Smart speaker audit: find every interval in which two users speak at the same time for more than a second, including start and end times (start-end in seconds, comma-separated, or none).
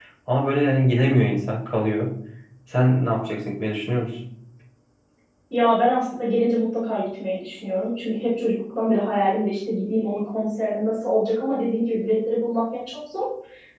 none